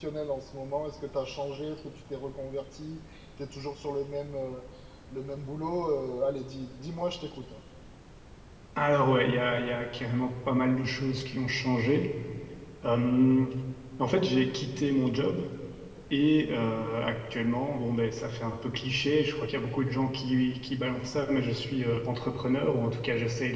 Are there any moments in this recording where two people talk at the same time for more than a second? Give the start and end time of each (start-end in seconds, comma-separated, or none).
none